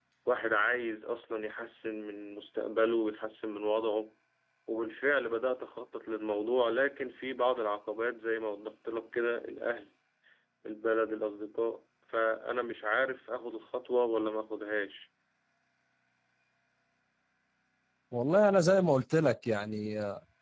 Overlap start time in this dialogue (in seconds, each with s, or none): none